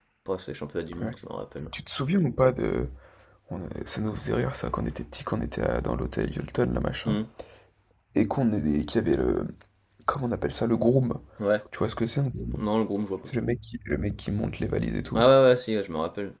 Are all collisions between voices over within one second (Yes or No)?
Yes